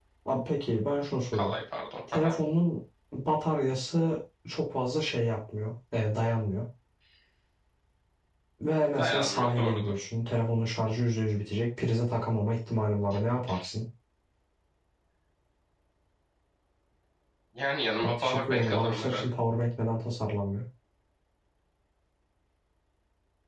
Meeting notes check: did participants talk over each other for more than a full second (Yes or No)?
Yes